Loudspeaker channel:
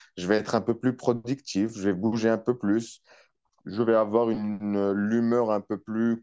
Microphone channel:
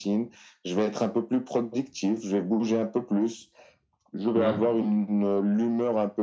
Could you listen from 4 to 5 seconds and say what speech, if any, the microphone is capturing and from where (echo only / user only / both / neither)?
both